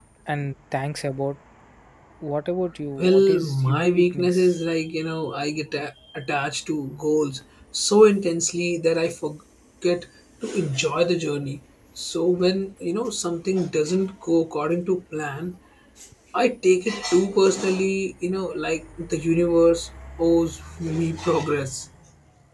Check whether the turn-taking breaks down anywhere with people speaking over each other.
Yes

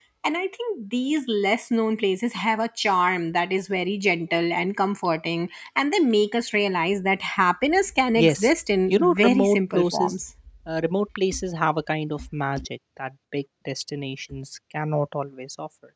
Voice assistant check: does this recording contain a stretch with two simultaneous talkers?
Yes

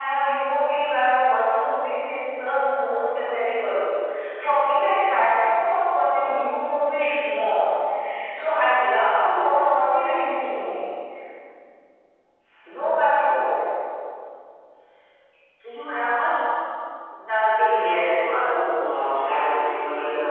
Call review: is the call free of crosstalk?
No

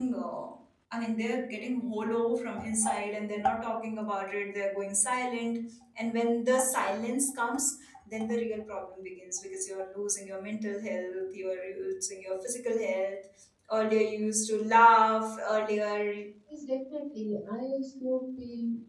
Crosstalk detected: No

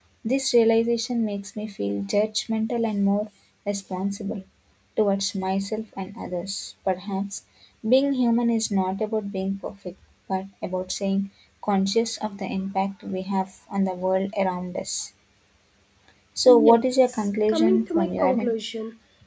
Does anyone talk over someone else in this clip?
Yes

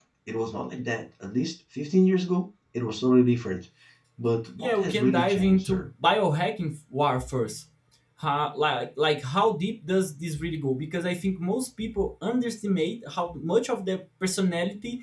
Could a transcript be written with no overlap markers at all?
No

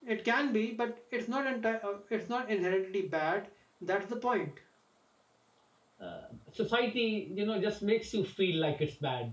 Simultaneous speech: No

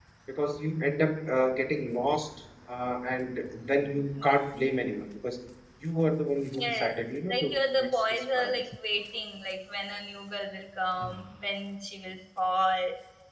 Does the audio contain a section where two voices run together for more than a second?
Yes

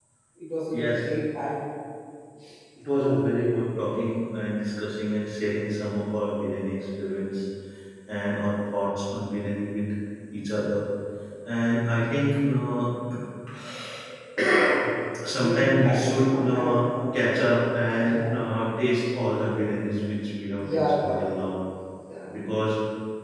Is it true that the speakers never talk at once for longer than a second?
No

